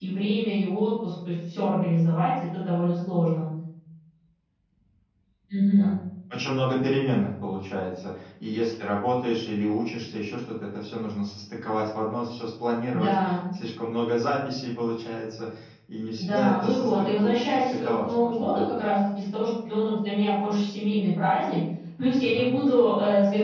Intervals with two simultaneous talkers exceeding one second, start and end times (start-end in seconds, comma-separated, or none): 16.2-18.6